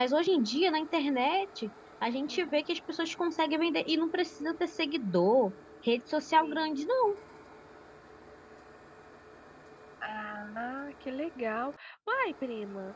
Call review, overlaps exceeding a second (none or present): none